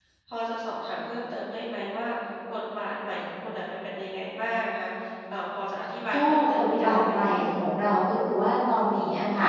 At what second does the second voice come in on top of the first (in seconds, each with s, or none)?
6.1 s